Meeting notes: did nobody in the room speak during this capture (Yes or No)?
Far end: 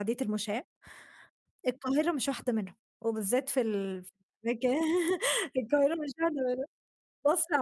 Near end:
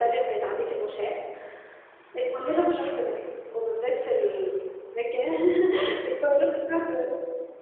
Yes